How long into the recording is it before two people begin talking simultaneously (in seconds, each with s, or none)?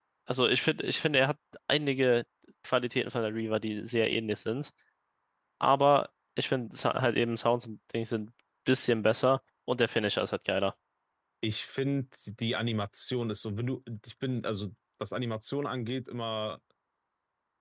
none